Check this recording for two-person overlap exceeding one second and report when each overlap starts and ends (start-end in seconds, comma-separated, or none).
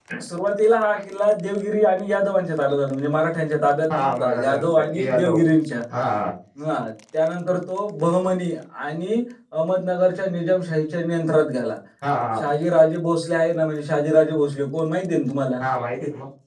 4.0-5.3